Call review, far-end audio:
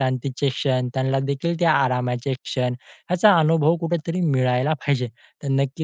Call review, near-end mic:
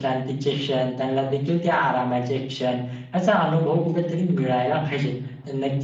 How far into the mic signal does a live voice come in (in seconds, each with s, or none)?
none